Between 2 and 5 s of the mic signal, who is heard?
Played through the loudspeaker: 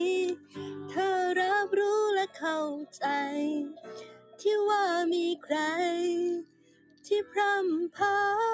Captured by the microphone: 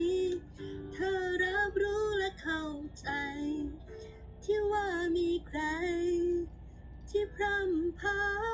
echo only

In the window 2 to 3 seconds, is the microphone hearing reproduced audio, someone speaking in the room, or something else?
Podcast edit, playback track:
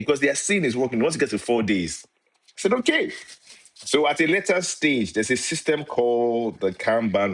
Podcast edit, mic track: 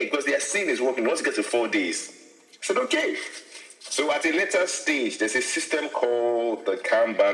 echo only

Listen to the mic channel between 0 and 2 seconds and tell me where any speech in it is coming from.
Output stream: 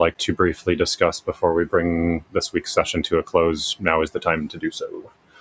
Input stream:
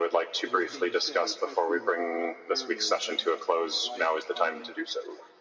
both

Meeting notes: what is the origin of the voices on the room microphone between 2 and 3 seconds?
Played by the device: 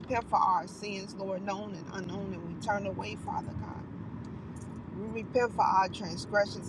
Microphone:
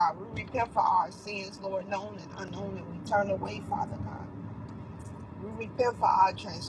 echo only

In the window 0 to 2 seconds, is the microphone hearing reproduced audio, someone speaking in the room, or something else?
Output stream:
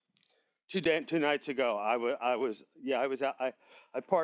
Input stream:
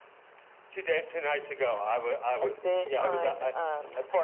echo only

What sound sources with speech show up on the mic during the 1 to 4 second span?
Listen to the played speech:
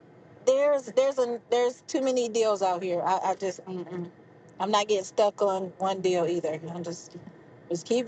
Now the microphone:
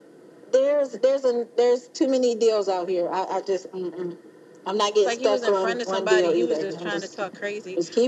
echo only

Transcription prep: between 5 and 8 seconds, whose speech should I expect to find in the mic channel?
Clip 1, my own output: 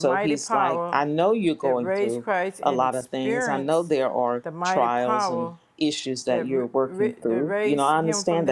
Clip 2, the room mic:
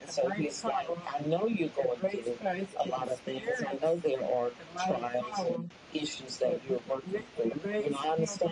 echo only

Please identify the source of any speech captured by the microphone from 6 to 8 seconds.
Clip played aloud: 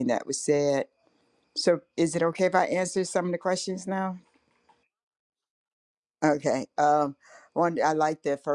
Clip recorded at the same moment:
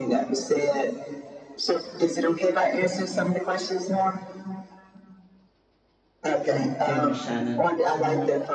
both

